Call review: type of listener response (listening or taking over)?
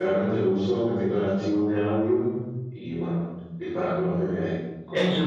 taking over